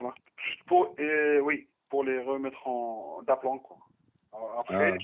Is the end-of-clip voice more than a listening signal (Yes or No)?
No